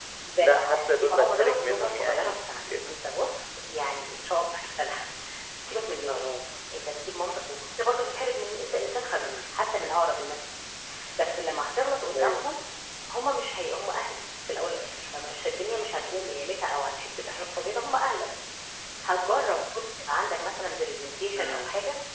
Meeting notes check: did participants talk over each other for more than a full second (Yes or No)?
Yes